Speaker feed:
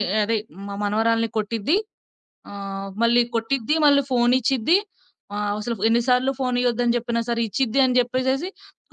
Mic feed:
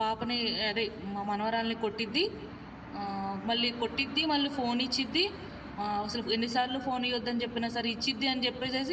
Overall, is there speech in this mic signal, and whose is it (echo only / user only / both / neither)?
echo only